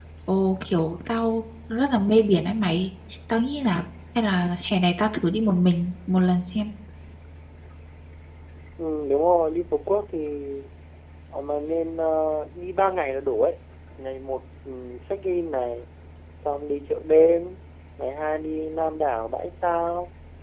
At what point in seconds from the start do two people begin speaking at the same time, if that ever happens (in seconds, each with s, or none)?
none